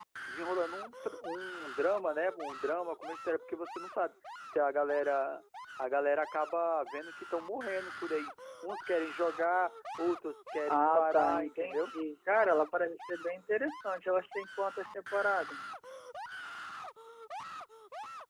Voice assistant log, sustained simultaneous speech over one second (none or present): present